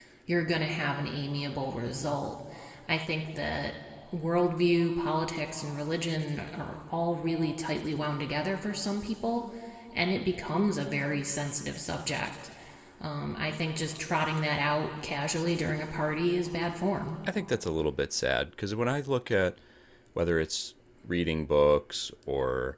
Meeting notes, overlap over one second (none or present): none